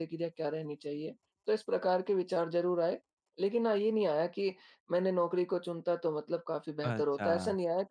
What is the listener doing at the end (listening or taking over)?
listening